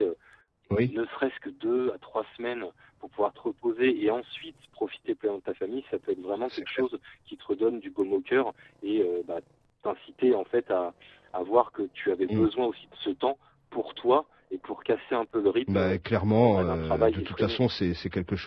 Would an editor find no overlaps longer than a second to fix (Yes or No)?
No